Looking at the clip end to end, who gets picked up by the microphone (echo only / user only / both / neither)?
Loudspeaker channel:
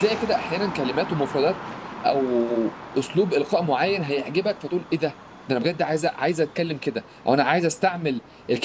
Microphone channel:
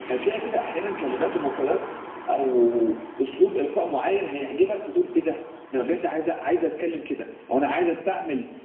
echo only